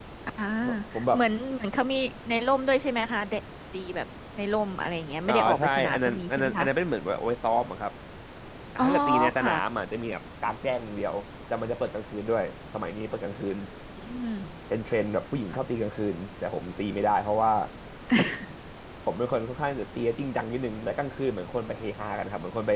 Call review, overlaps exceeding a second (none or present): present